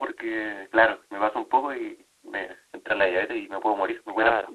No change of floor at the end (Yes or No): No